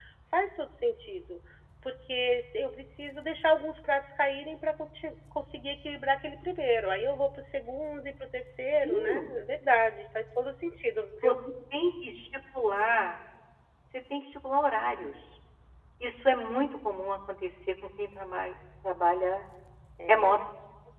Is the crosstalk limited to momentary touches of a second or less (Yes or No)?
Yes